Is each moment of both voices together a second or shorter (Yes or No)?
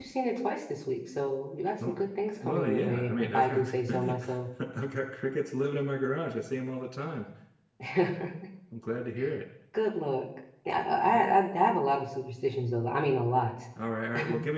No